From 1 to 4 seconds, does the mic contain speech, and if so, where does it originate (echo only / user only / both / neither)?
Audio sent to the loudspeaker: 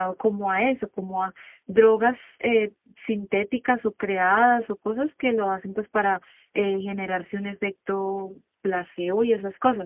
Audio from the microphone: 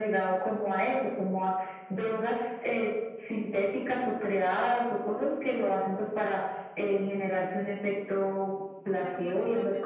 echo only